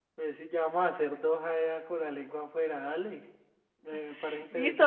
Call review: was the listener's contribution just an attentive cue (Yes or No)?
No